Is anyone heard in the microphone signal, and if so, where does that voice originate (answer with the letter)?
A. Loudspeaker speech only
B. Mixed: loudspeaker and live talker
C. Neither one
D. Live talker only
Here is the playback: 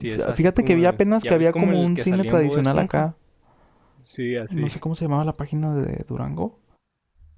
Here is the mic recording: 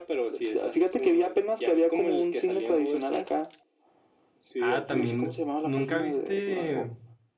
B